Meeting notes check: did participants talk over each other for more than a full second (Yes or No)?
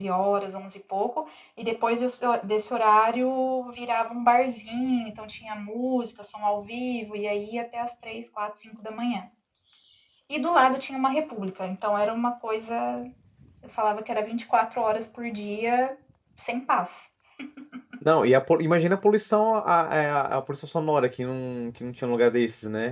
No